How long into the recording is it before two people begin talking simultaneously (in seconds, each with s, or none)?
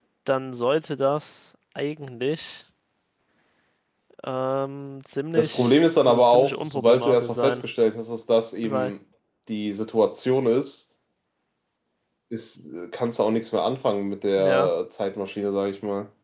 5.4 s